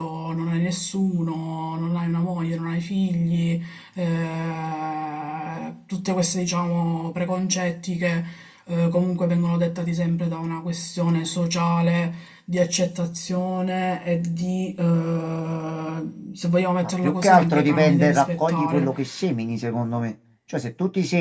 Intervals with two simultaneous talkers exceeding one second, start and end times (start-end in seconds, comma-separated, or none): 16.8-19.2